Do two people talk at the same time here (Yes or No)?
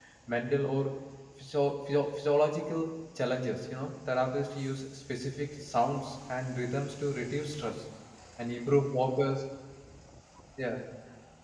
No